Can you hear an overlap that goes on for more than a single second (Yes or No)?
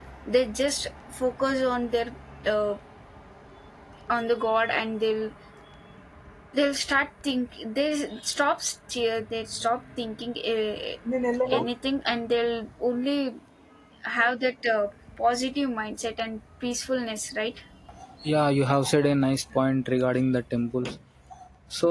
No